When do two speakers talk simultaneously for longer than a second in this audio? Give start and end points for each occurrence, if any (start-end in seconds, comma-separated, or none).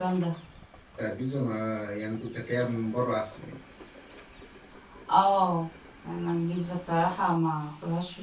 none